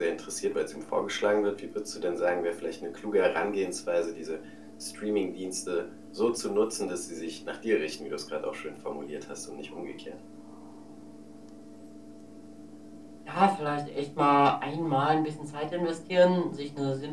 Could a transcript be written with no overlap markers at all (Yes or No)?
Yes